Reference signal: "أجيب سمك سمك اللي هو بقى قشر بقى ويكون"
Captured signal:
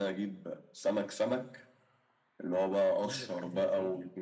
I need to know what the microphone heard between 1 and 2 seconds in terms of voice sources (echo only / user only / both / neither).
echo only